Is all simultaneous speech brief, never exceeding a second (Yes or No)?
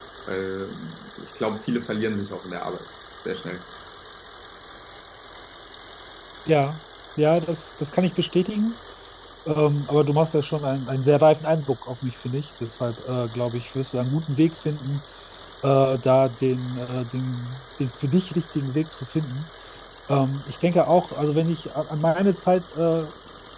Yes